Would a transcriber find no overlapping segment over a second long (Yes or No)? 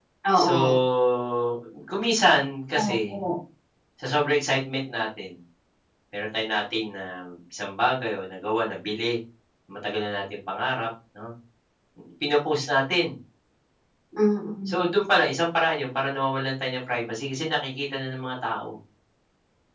Yes